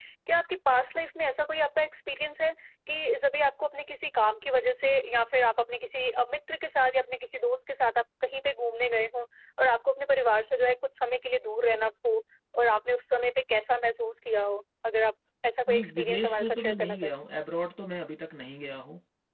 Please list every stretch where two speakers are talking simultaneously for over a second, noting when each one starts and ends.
15.7-17.1

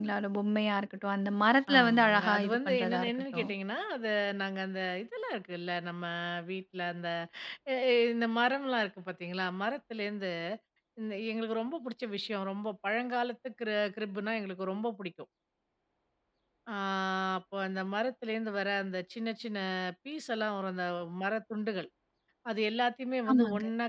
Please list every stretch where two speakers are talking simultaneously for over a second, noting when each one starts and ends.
1.8-3.5

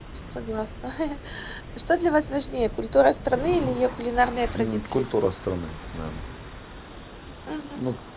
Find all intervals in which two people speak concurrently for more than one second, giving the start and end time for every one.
none

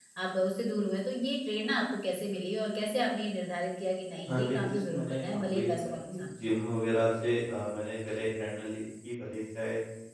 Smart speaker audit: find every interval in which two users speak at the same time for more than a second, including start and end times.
4.2-6.3

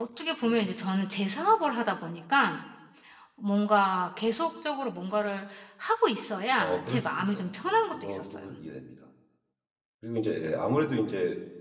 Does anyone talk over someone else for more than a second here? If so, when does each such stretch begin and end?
6.6-8.4

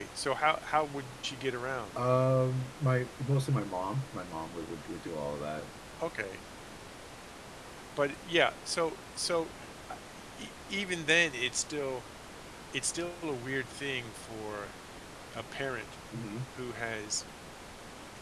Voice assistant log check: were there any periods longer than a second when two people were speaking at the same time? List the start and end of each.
none

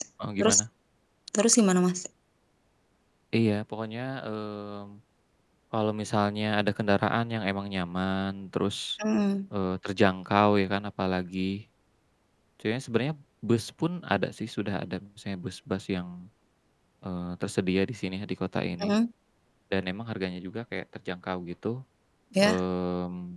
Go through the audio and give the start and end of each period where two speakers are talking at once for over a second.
none

